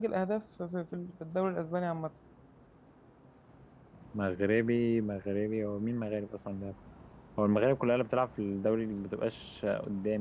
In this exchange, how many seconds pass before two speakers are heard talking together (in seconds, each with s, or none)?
none